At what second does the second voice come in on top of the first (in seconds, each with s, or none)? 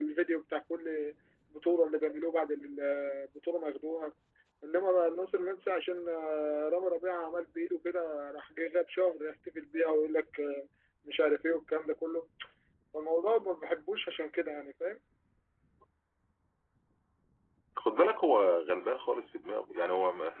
none